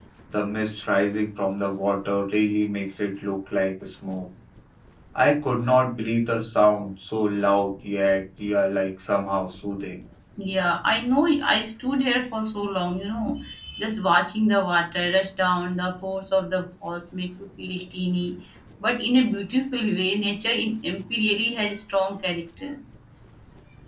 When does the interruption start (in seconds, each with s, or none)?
none